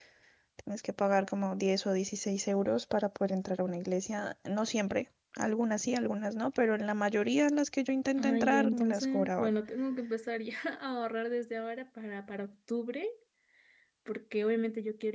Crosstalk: present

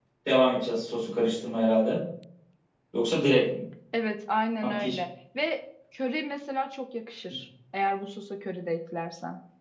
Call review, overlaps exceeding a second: none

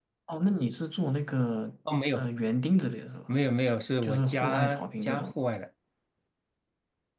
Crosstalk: present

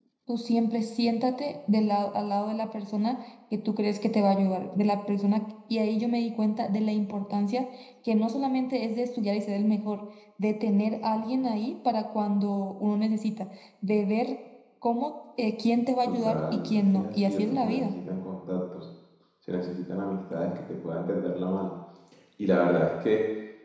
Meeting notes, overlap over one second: present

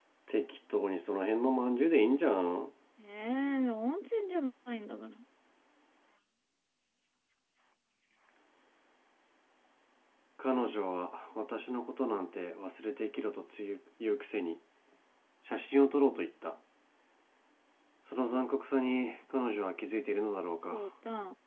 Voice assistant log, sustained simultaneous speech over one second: none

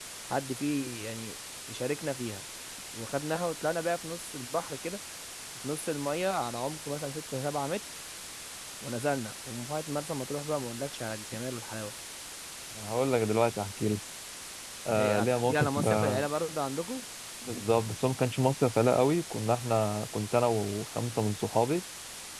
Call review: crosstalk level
present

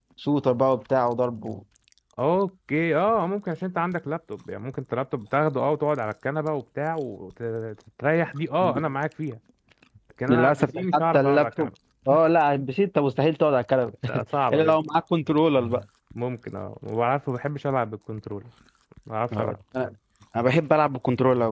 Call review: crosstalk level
present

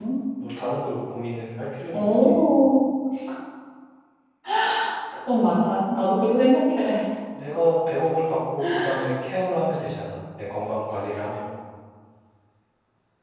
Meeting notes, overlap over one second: none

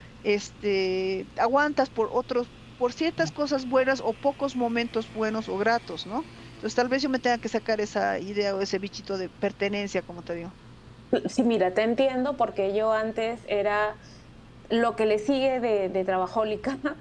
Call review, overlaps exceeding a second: none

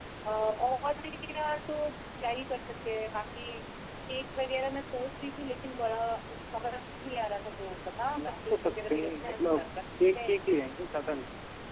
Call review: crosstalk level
present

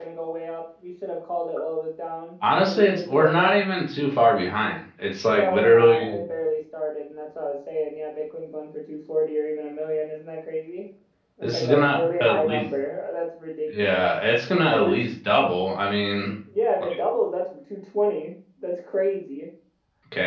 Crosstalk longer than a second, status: present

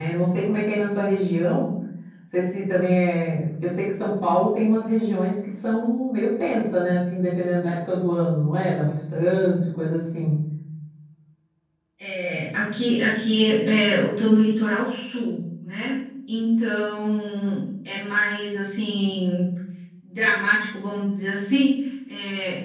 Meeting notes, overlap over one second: none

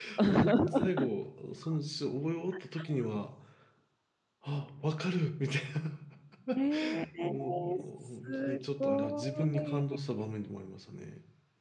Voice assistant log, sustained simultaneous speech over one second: present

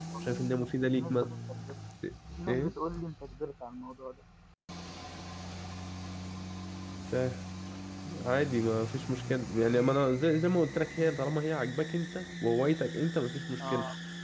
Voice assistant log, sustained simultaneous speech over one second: none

